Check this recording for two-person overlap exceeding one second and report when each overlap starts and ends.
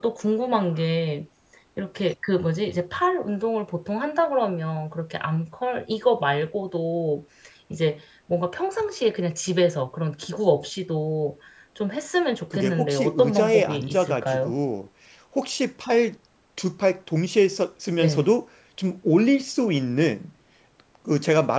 12.5-14.5

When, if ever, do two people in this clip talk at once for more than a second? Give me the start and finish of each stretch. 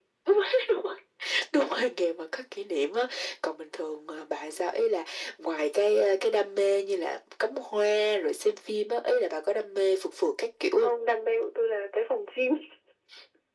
none

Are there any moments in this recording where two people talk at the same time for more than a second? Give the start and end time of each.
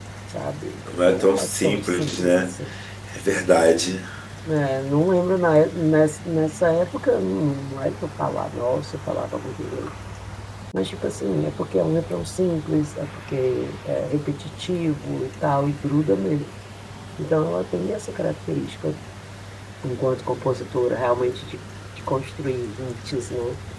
1.0-2.5

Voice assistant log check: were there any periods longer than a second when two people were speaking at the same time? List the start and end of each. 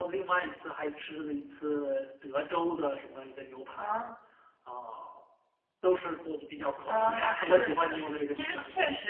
6.9-8.5

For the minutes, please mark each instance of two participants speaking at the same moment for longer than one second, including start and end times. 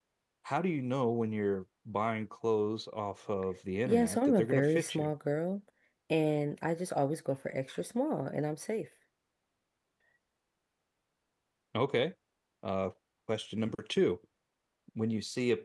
3.9-5.1

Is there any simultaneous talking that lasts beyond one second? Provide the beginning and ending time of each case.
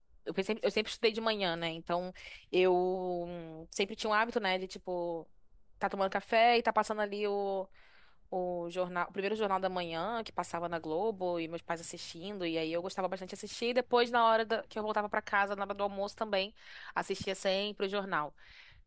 none

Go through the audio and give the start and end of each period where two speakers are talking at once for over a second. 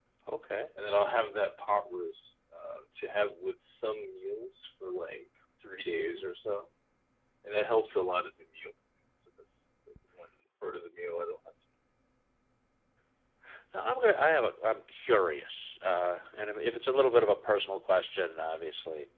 none

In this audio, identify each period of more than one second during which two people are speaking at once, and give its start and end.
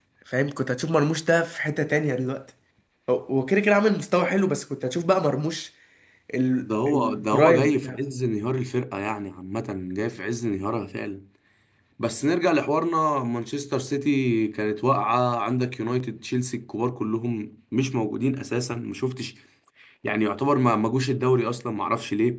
6.6-8.0

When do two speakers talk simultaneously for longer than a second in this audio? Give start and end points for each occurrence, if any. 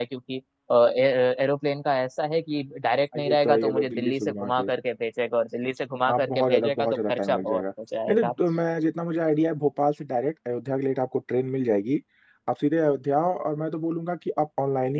3.1-4.7, 6.1-7.6

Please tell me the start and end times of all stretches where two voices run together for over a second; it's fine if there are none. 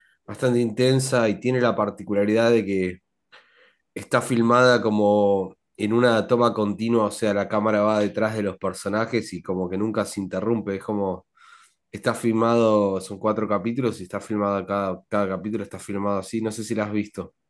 none

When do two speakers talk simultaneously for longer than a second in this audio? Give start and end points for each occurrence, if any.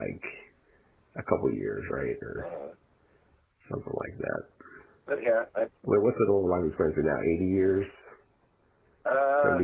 none

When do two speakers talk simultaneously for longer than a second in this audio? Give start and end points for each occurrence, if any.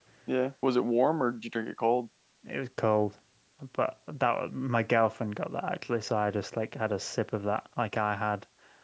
none

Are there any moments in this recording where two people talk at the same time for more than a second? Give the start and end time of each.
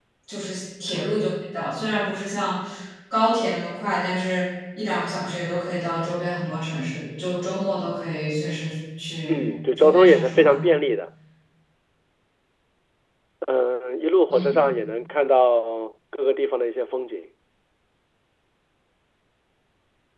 9.3-10.6

